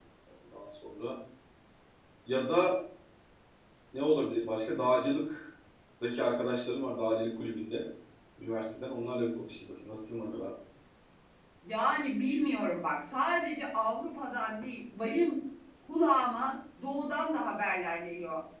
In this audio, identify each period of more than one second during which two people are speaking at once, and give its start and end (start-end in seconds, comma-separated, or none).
none